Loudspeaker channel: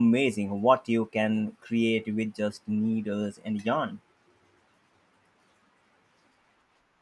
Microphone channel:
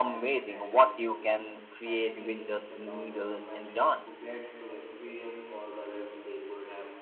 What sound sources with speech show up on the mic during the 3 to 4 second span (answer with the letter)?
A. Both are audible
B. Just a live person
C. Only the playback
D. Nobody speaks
A